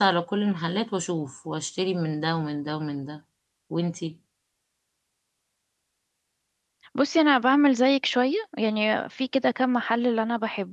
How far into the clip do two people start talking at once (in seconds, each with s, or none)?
none